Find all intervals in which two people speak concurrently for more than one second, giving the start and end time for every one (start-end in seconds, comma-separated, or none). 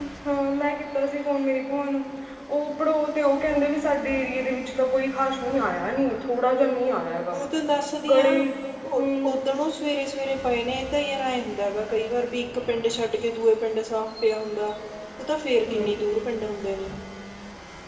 none